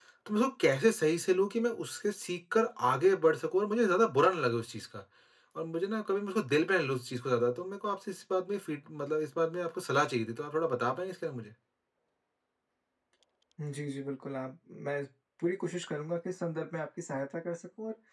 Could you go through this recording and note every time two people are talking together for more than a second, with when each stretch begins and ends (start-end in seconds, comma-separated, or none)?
none